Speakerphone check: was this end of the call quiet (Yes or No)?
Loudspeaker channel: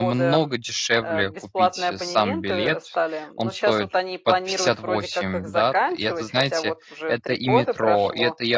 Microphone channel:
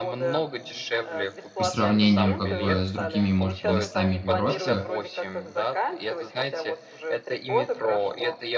No